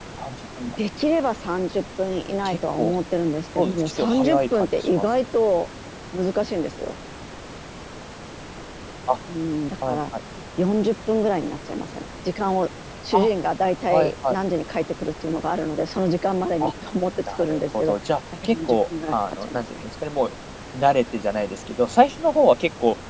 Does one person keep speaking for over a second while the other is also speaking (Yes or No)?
Yes